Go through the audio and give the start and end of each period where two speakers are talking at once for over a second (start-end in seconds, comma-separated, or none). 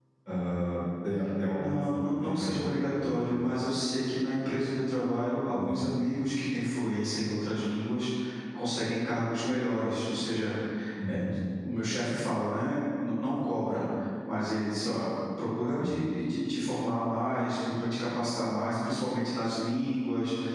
1.5-3.4